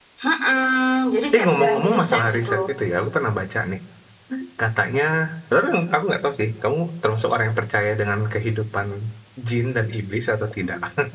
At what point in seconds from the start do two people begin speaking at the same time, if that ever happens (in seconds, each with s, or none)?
1.3 s